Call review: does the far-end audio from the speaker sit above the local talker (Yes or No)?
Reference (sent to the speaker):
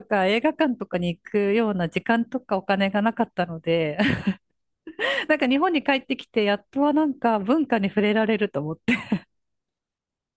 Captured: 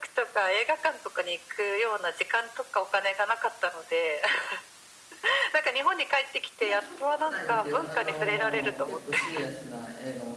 Yes